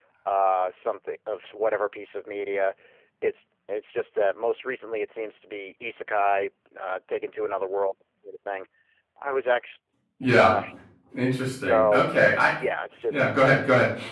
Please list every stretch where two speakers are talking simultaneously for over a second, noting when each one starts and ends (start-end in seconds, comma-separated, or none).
none